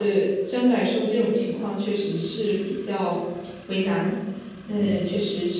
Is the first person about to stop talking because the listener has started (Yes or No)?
No